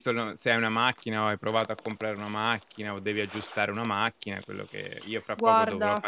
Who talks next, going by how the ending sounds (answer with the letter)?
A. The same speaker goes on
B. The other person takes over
A